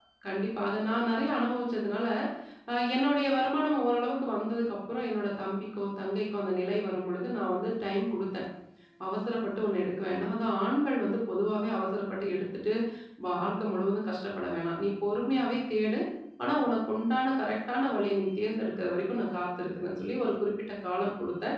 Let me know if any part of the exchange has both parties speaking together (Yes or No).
No